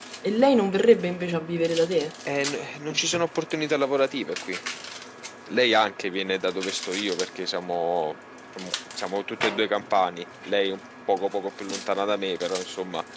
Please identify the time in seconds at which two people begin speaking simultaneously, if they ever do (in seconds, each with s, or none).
none